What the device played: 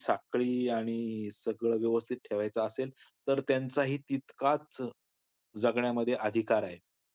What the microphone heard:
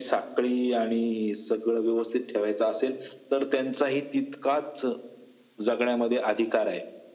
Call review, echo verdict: present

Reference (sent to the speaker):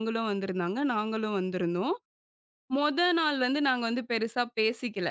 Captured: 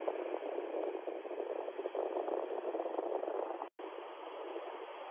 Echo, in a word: none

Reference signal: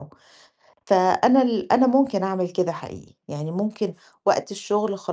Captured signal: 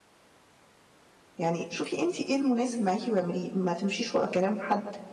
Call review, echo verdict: none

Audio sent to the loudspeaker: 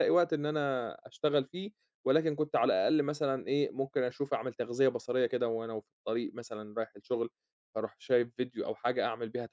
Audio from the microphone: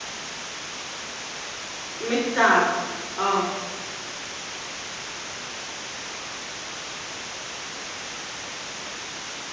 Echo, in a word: none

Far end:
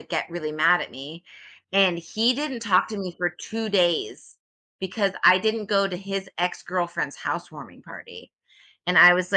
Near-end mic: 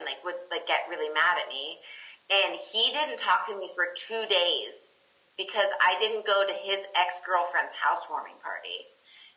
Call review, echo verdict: present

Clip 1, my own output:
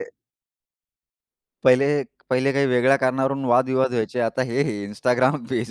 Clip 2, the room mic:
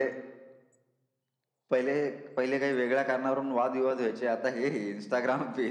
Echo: present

